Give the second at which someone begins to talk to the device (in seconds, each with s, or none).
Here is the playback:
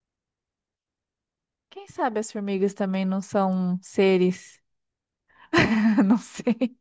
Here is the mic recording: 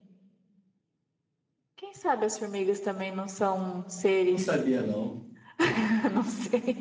4.2 s